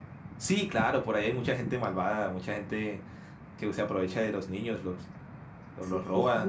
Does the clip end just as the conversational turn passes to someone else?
Yes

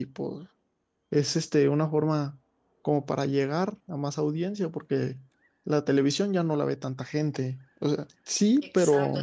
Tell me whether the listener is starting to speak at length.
Yes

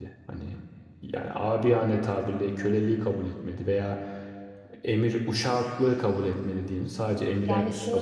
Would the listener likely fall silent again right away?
No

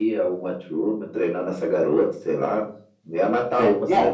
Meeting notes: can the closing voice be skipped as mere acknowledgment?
No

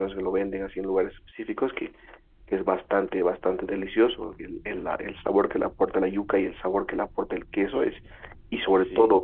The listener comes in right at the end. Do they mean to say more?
No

